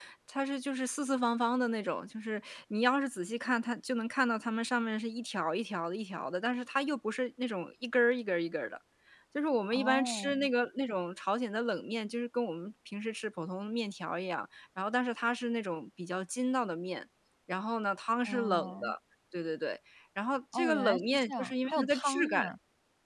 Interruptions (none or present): present